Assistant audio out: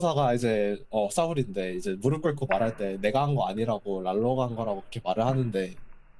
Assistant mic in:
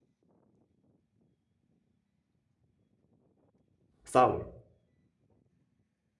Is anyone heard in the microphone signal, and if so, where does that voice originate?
user only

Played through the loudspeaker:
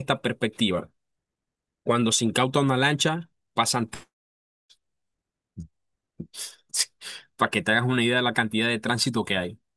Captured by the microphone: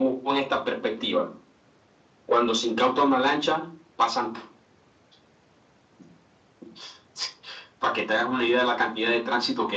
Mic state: echo only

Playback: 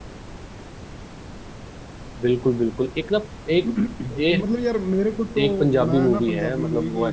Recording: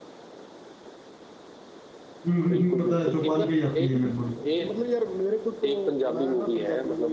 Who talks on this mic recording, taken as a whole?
both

